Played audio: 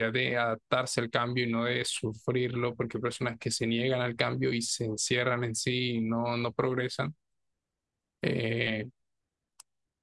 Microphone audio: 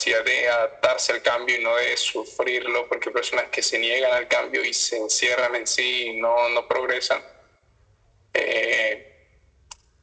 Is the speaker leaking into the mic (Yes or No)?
Yes